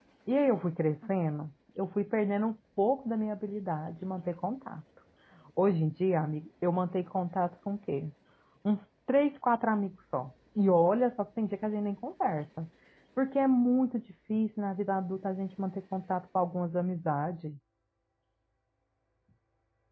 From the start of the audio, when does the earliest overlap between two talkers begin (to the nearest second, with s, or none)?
none